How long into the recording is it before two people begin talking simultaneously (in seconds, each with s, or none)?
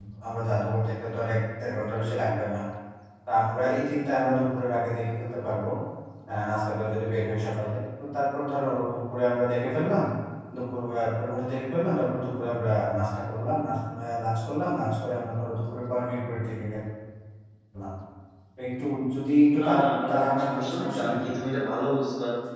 19.5 s